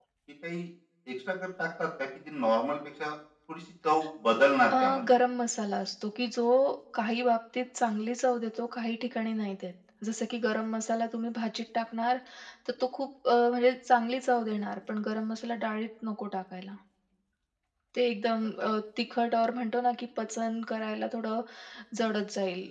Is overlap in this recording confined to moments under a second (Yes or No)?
Yes